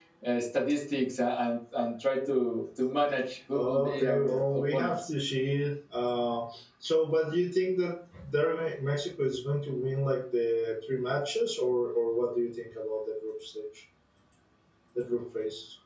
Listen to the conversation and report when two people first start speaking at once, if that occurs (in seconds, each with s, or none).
3.5 s